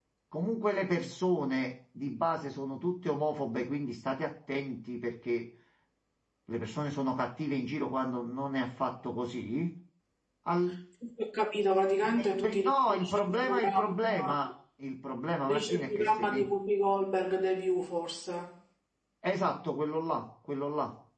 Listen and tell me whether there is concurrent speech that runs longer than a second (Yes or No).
Yes